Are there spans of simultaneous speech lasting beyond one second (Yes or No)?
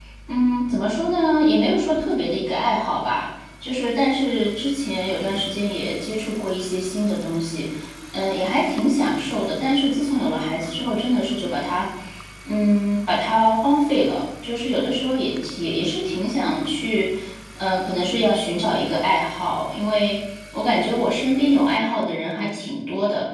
No